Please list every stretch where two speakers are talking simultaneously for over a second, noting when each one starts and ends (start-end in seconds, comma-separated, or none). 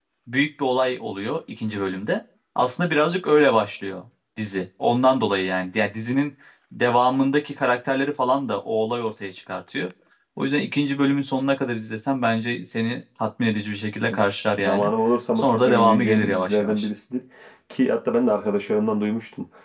15.4-16.9